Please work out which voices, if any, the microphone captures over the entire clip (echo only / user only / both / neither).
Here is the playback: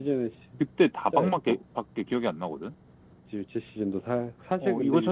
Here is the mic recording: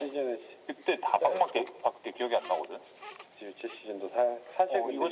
echo only